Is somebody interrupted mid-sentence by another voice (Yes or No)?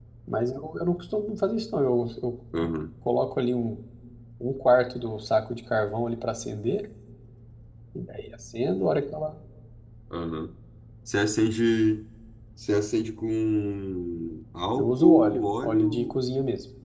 Yes